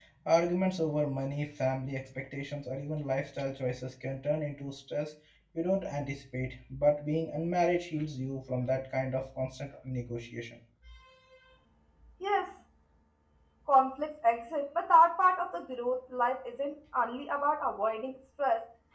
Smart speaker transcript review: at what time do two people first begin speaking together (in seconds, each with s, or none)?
none